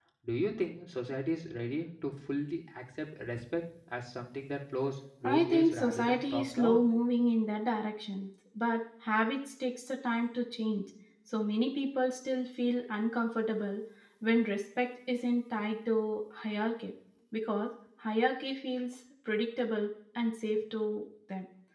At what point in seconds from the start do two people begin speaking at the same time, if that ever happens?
5 s

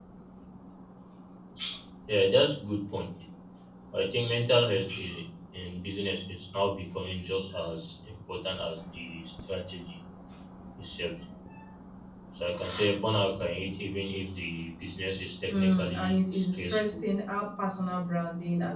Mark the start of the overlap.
15 s

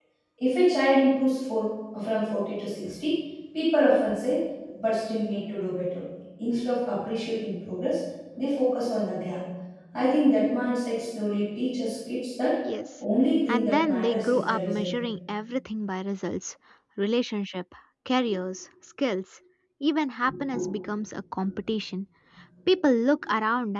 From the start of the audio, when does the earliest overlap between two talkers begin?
13 s

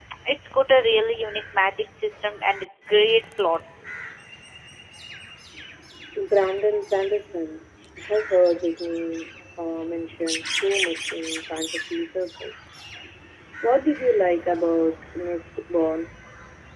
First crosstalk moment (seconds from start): none

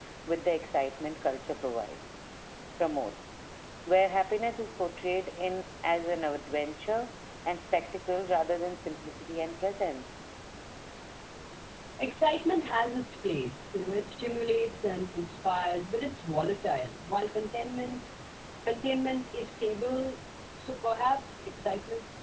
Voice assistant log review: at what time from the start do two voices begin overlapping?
none

